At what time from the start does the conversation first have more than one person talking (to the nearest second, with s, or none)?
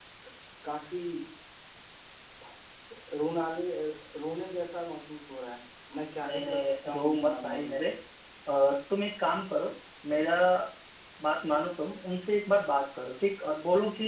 6 s